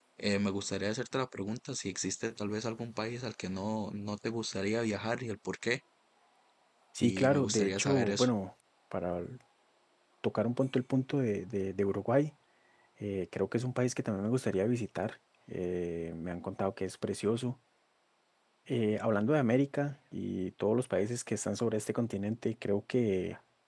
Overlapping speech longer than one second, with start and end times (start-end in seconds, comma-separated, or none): 7.0-8.3